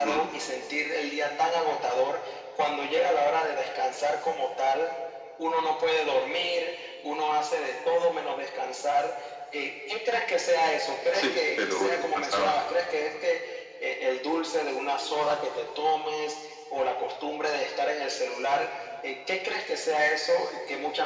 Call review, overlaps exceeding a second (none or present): present